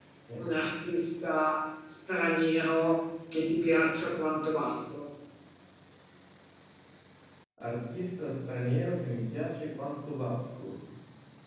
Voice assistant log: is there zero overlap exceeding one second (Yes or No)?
Yes